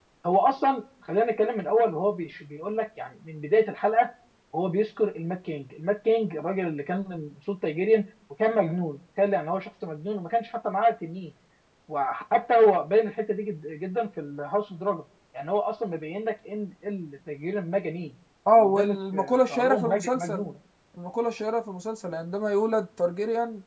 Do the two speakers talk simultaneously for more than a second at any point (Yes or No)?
Yes